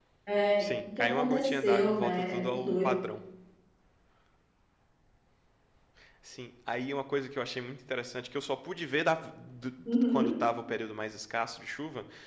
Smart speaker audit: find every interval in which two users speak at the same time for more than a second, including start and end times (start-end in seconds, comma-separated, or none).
0.6-3.0